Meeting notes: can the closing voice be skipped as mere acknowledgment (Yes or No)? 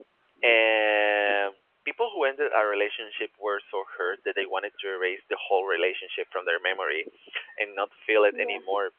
Yes